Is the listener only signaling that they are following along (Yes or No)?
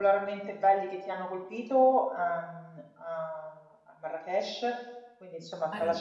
Yes